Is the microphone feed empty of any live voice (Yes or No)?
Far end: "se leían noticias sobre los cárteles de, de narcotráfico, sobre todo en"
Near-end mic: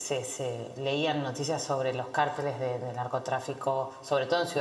Yes